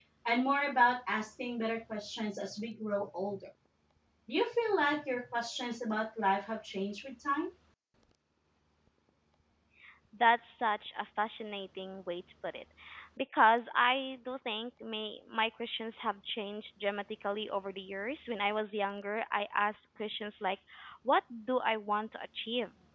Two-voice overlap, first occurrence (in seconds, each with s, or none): none